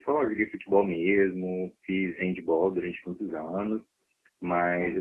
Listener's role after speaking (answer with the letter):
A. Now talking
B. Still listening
B